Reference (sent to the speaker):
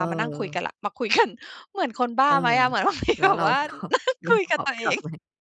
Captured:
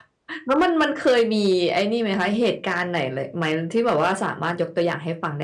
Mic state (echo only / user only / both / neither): user only